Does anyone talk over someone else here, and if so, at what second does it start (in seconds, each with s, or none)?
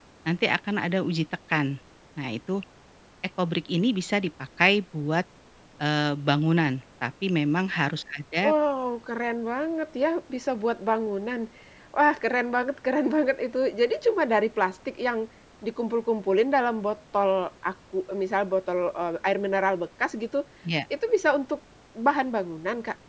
none